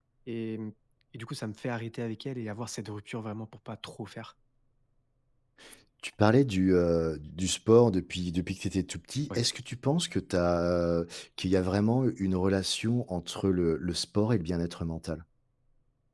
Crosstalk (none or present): none